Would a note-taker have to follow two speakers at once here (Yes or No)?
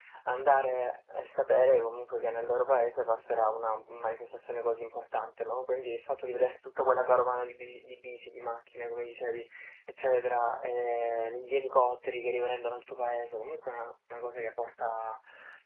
No